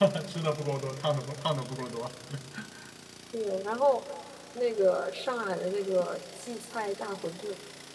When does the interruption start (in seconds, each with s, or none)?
none